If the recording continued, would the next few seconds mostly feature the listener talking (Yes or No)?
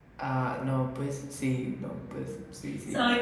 Yes